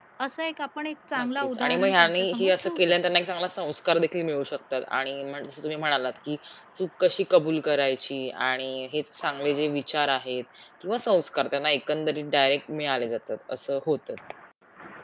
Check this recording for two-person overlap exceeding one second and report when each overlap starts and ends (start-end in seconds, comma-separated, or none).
1.2-3.0